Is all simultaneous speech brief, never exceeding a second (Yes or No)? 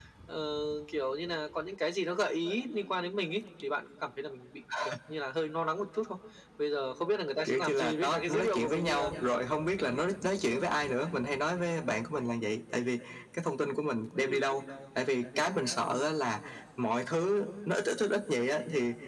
No